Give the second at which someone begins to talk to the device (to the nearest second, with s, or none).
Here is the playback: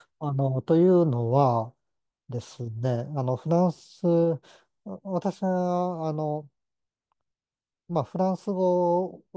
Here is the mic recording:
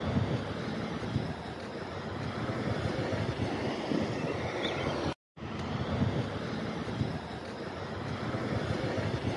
none